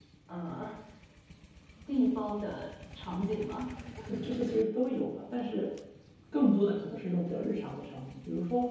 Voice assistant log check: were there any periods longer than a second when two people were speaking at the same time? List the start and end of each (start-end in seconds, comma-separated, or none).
none